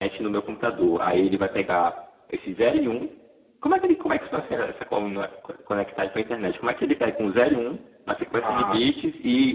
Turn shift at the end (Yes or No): No